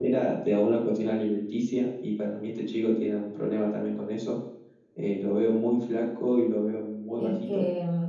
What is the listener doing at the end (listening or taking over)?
taking over